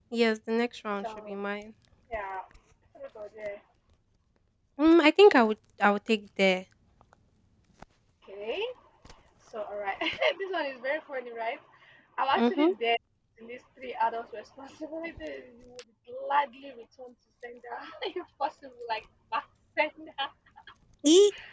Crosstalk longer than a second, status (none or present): none